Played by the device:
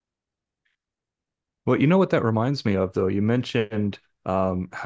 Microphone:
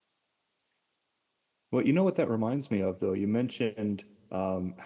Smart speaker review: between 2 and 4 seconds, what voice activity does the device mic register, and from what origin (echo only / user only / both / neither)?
echo only